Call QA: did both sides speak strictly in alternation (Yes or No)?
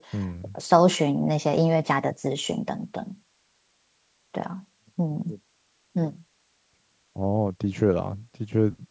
Yes